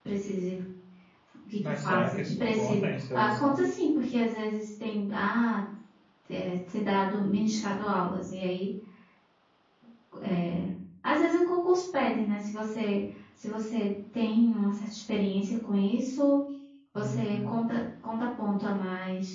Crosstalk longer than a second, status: present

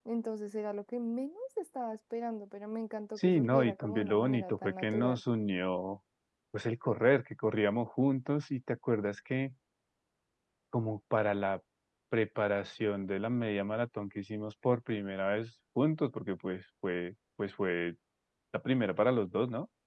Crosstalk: present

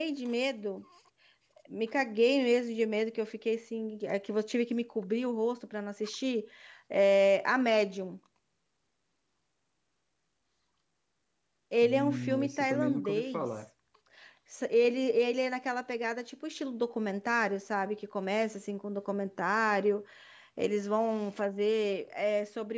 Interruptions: present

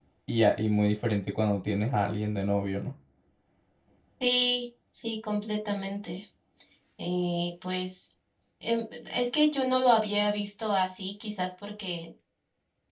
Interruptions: none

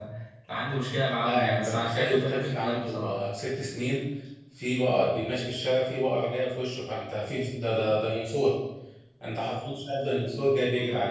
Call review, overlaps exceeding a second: present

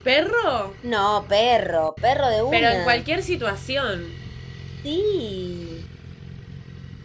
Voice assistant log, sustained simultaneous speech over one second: none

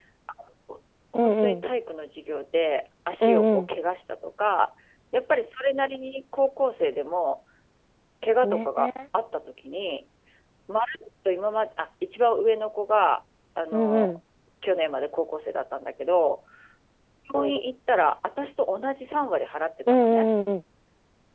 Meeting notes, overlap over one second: none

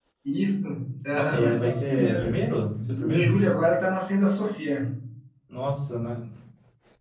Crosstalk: present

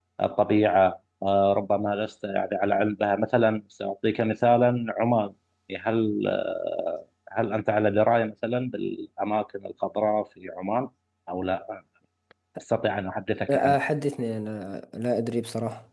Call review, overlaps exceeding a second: none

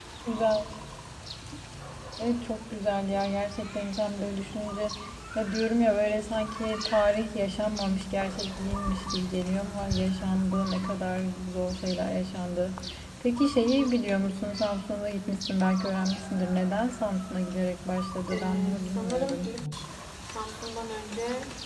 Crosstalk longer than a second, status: present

